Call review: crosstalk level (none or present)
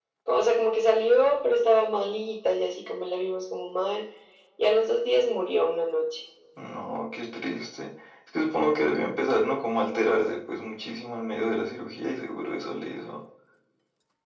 none